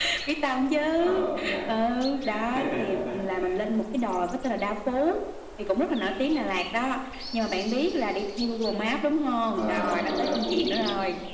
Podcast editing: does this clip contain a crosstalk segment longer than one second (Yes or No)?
Yes